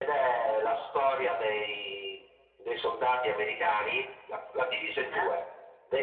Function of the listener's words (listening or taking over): listening